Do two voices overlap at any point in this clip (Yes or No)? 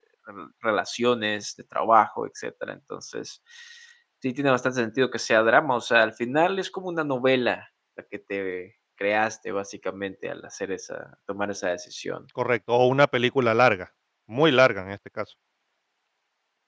No